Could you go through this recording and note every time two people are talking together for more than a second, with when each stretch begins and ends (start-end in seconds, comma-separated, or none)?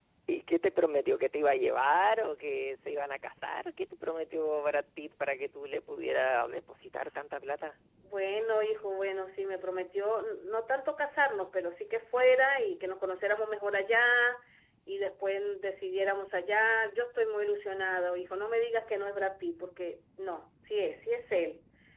none